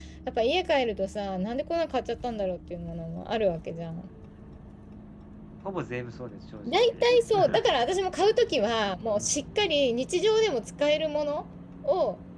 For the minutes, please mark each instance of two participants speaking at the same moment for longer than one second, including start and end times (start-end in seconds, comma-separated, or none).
none